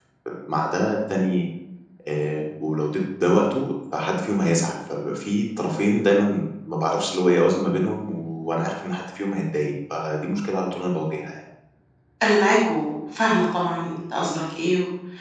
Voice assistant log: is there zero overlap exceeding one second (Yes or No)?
Yes